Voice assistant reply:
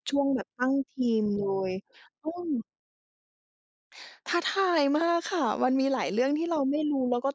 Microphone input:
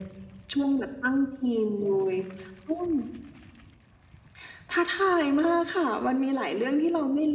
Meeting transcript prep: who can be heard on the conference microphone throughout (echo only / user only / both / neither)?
echo only